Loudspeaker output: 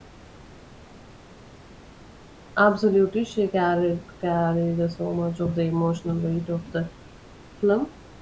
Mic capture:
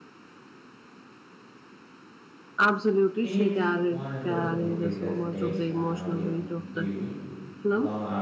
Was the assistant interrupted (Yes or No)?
Yes